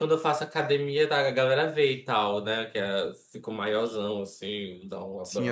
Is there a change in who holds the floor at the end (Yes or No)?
Yes